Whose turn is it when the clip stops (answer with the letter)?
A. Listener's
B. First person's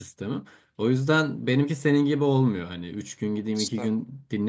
B